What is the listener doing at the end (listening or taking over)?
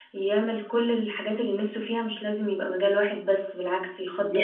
listening